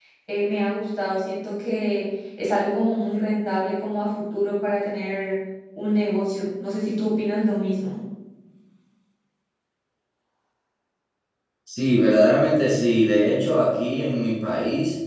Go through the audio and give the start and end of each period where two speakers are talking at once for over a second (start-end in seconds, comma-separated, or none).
none